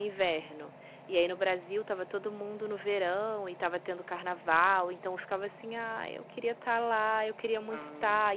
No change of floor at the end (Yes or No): Yes